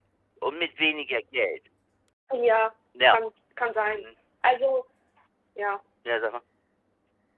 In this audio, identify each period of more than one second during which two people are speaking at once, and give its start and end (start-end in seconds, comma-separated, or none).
none